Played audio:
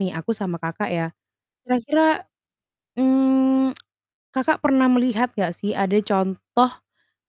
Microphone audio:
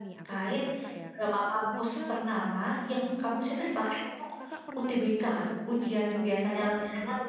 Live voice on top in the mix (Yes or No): Yes